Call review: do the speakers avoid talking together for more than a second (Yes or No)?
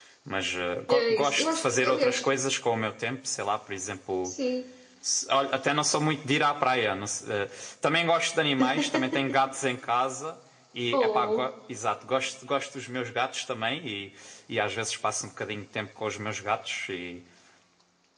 No